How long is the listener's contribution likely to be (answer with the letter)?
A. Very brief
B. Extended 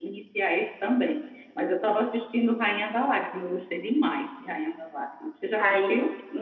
B